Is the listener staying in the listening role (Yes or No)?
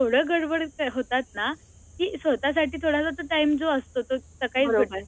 Yes